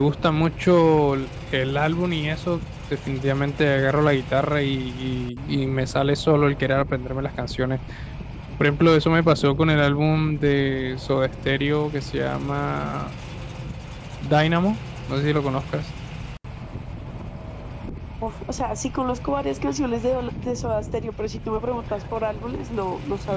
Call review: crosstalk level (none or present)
none